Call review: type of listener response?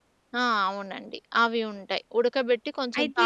listening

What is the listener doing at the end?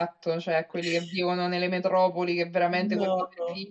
listening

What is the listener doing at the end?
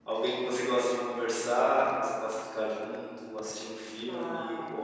listening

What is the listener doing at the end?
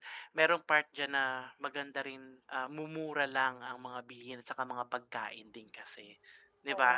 taking over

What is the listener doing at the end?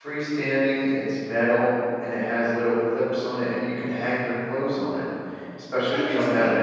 listening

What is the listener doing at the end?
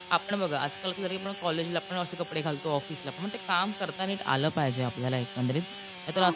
listening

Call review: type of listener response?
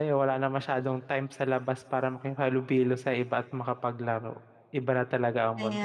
taking over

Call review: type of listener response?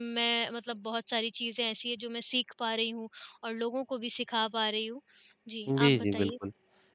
taking over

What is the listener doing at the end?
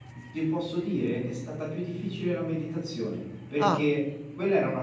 listening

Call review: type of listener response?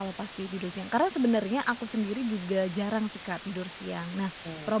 listening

